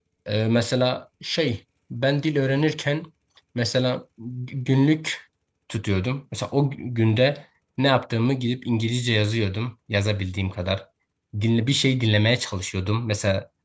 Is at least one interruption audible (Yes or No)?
No